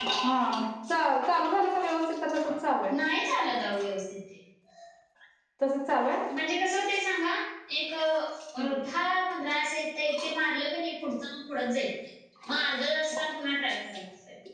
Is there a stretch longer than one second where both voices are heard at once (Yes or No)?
No